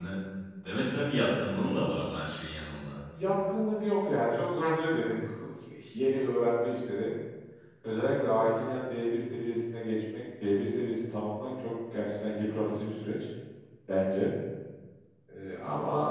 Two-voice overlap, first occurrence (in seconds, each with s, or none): none